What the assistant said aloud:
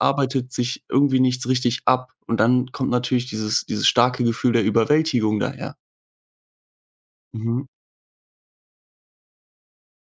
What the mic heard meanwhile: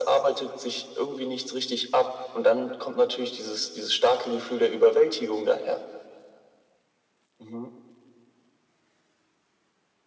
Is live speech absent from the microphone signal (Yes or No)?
Yes